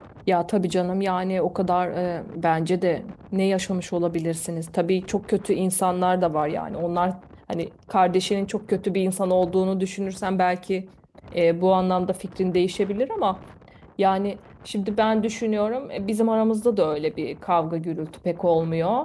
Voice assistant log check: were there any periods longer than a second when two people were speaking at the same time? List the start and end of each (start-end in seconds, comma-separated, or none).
none